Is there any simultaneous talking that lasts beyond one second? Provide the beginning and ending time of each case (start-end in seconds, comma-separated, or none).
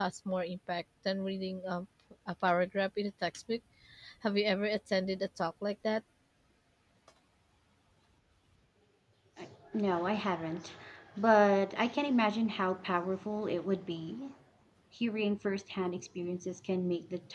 none